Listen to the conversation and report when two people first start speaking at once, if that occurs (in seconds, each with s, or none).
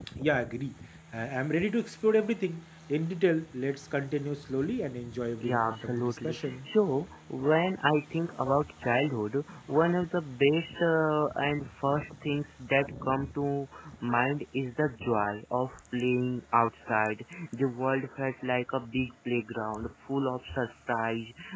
5.4 s